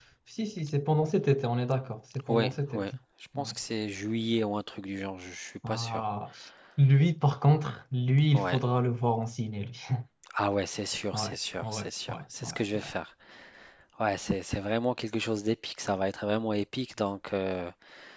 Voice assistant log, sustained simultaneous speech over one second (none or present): present